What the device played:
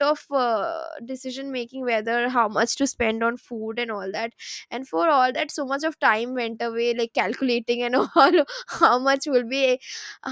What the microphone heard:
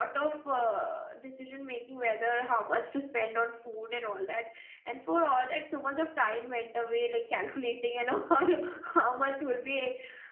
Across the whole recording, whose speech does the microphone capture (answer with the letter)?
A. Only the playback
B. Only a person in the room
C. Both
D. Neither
A